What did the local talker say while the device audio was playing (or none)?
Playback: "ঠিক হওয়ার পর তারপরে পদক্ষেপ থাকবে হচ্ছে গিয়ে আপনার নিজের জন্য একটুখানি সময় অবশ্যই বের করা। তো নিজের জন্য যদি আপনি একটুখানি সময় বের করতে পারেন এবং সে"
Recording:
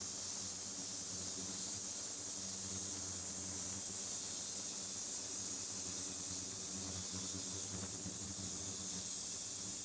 none